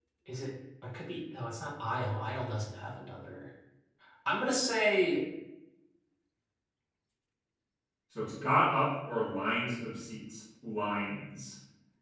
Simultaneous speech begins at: none

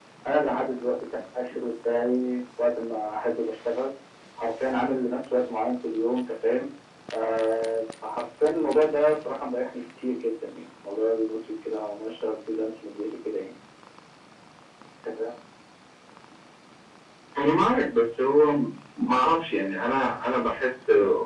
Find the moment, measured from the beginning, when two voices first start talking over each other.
none

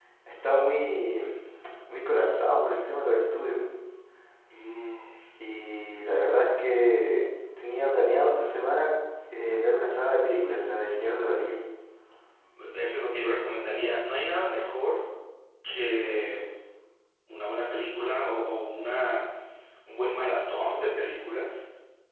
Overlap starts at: none

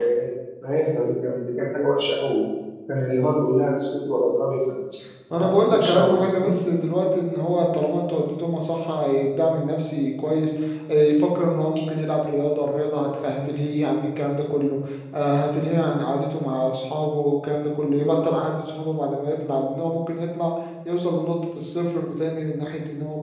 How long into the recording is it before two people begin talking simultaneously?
5.3 s

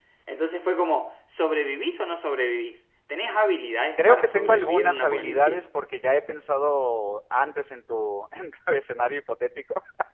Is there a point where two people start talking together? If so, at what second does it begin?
4.0 s

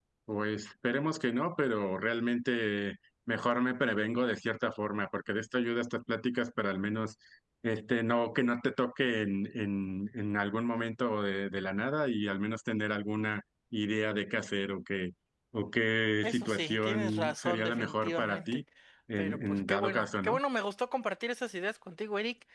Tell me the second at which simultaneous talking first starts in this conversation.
16.2 s

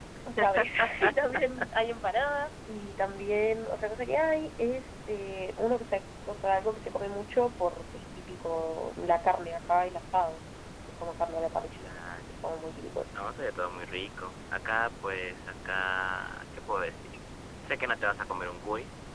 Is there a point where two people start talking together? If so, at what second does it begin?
none

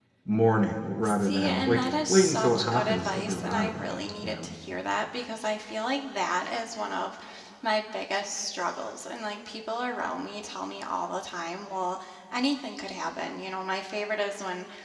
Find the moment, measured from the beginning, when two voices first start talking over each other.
1.0 s

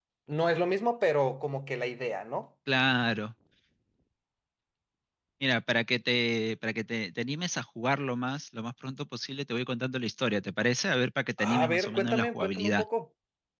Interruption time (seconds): 11.4 s

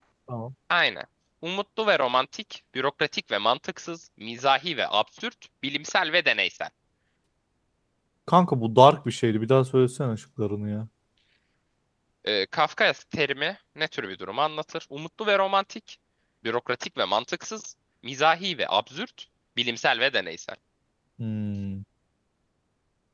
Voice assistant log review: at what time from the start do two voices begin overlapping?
none

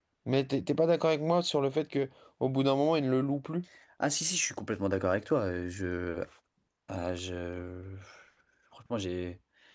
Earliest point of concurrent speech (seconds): none

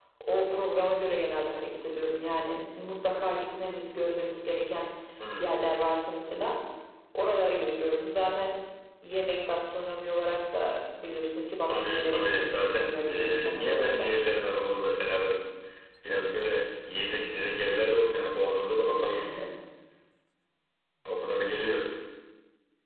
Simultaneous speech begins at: 11.7 s

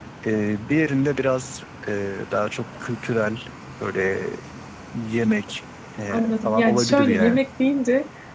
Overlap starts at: 6.1 s

